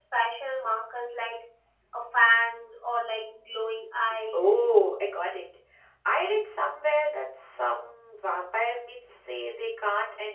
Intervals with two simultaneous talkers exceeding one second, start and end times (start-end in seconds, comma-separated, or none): none